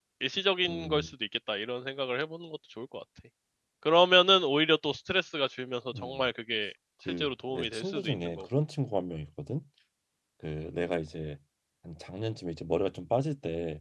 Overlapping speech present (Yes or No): Yes